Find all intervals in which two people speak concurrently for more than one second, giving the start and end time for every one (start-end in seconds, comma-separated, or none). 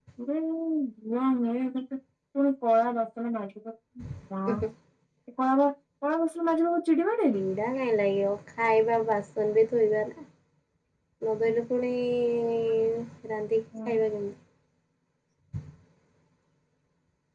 none